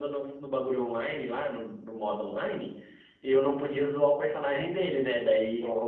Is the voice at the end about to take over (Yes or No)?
No